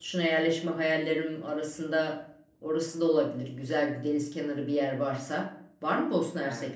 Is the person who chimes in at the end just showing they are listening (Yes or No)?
No